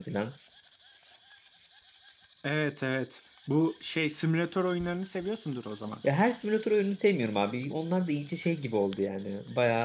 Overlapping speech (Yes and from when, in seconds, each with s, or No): No